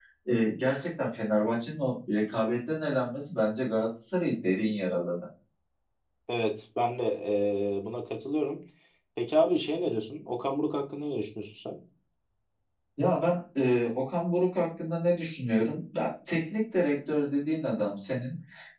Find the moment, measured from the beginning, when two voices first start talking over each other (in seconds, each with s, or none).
none